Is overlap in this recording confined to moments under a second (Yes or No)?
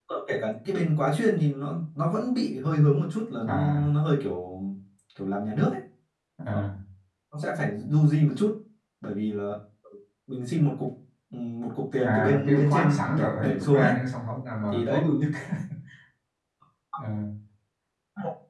No